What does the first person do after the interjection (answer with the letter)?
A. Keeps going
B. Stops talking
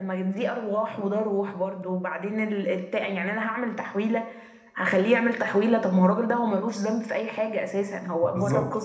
B